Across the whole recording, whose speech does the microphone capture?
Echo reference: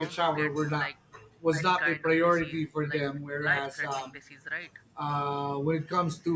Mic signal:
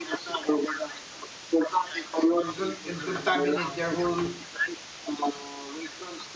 both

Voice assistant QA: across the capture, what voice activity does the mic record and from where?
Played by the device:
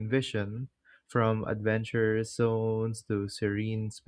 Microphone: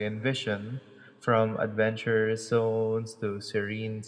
echo only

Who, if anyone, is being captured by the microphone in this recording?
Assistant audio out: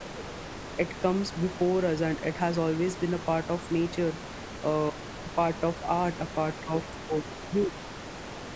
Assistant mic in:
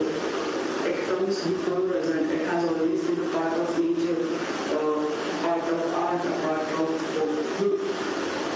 echo only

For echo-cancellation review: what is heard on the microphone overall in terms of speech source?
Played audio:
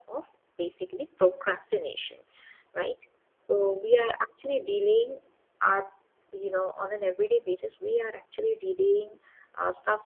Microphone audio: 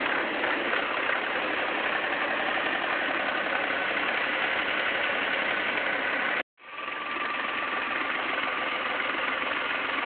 neither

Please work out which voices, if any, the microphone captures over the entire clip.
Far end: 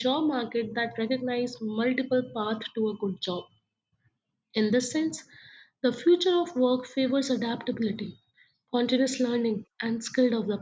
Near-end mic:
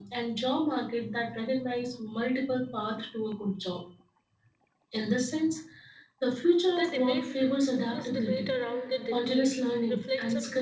both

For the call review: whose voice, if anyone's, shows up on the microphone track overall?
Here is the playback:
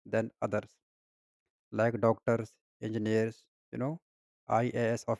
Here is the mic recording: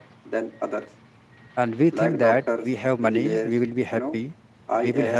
both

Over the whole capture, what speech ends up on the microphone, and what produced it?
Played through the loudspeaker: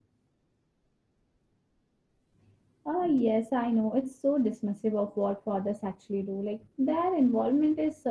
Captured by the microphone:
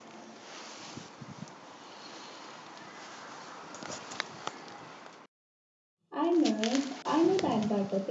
user only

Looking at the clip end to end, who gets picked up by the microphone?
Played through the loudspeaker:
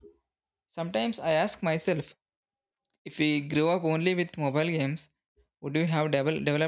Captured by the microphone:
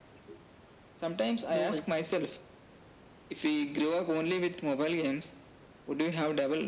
both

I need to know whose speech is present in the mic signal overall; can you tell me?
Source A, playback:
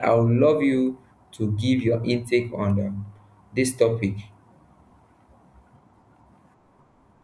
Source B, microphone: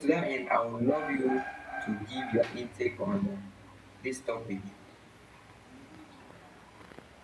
echo only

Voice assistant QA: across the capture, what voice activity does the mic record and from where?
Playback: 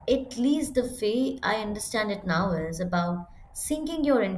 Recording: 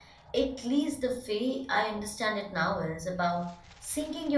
echo only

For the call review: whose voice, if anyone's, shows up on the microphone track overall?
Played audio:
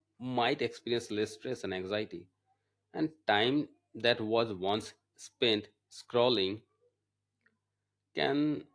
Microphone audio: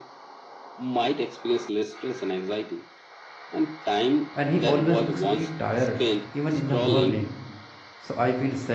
both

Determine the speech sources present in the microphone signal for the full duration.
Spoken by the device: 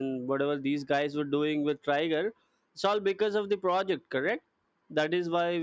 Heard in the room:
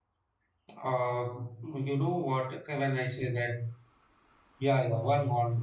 user only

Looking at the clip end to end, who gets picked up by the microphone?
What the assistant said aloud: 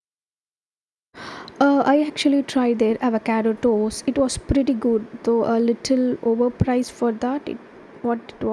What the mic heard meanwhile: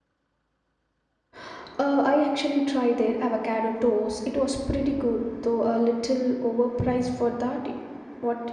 echo only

